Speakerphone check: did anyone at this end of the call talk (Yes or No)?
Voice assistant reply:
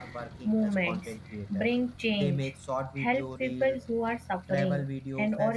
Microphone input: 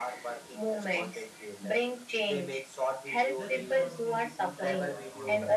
Yes